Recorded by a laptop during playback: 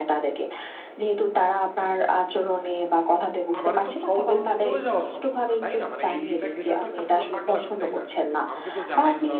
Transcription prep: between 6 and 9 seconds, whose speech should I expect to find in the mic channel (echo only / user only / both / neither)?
both